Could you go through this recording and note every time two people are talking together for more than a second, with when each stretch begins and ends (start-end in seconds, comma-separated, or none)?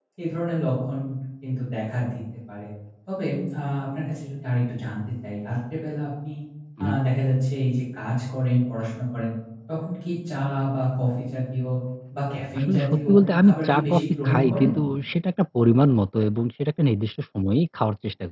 12.6-14.7